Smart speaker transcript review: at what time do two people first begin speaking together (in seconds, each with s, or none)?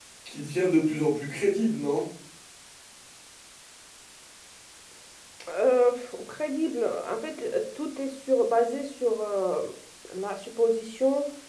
none